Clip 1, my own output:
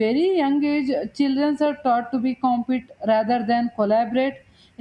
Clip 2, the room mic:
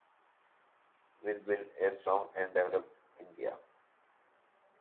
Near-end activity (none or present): present